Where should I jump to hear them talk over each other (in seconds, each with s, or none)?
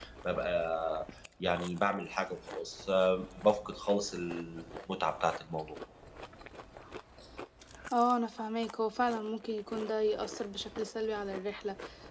none